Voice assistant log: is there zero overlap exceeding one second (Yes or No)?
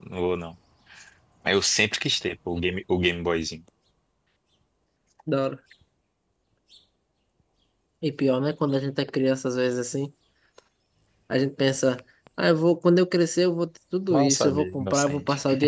No